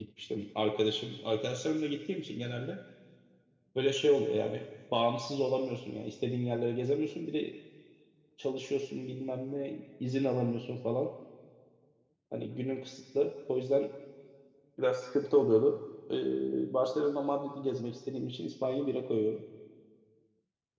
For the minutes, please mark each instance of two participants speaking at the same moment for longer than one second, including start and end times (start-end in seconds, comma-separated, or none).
none